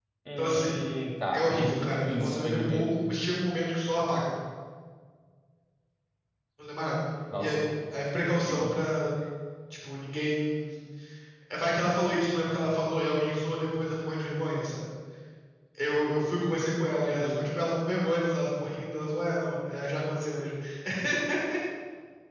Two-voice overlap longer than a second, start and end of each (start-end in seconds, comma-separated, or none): 1.3-3.0